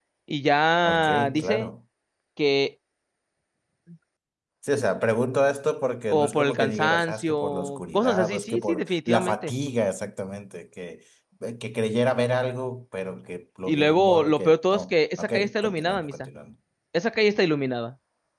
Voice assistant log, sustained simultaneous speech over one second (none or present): present